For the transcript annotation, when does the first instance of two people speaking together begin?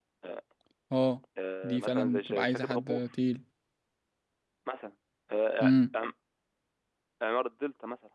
1.6 s

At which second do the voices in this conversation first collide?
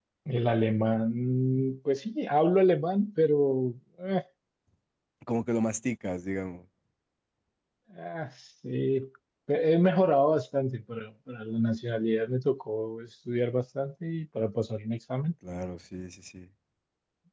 none

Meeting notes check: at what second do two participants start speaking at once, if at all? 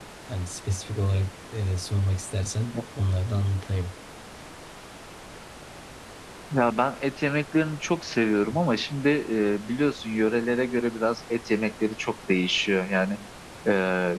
none

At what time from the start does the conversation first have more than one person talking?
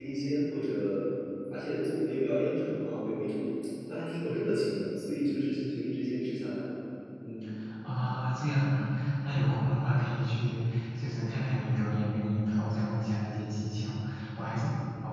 none

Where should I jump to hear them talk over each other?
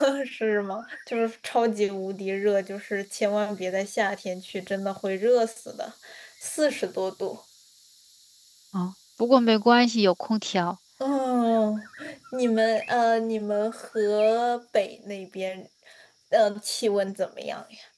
none

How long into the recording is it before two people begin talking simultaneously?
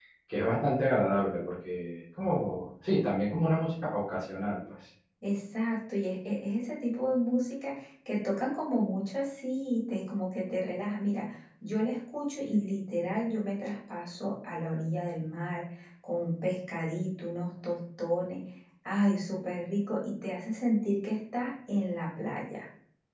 none

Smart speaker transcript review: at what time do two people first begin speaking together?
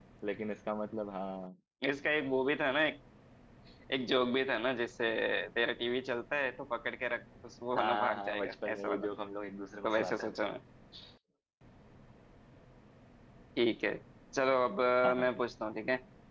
7.8 s

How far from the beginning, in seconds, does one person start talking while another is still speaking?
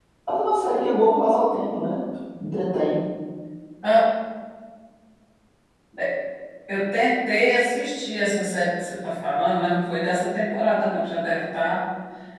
none

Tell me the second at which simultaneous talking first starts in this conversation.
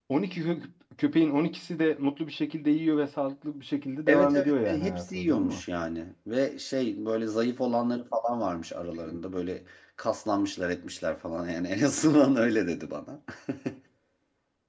4.1 s

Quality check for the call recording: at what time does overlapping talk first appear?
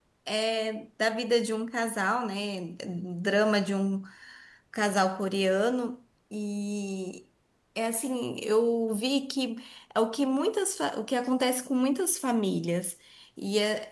none

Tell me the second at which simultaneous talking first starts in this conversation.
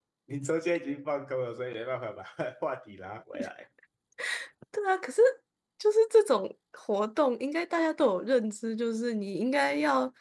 none

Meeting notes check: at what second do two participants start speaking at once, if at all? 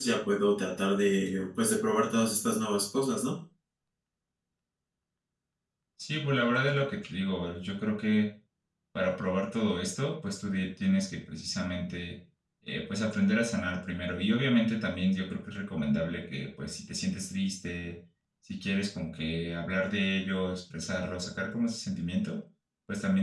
none

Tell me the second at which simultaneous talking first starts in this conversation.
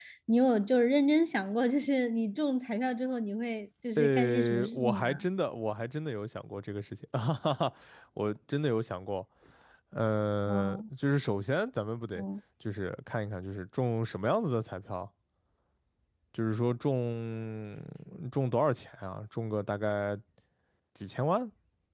4.0 s

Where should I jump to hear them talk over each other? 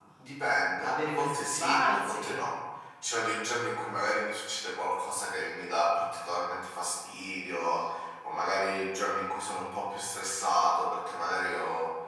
0.8 s

